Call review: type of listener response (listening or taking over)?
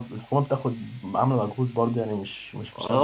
taking over